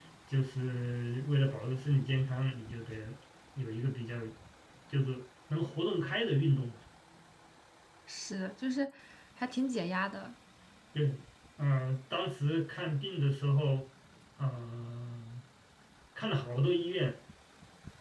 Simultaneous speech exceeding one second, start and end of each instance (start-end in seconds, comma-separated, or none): none